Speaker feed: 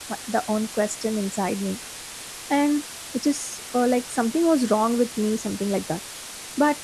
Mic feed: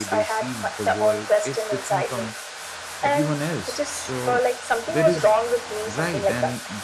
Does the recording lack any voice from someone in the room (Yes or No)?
No